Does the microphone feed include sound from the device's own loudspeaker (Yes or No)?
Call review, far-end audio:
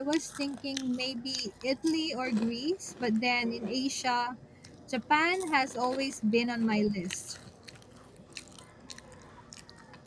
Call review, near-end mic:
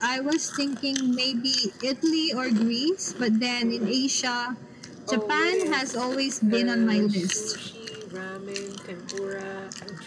Yes